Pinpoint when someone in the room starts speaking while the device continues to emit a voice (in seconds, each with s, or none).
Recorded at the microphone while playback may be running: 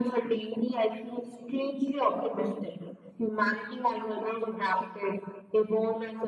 none